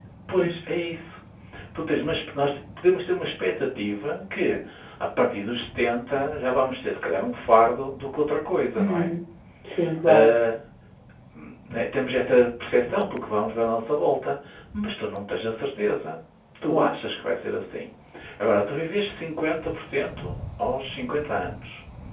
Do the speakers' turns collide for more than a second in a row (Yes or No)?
No